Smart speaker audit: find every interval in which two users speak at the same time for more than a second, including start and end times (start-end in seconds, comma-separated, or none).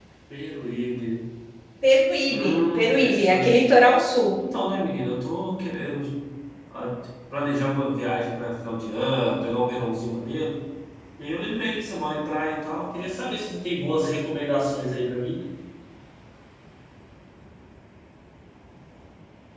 2.3-3.6